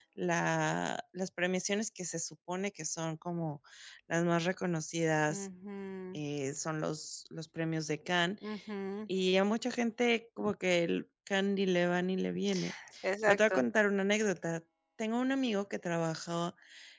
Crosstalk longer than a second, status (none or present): none